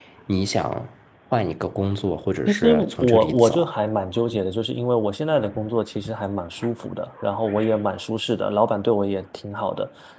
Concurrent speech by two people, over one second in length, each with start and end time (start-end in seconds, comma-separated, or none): 2.5-3.7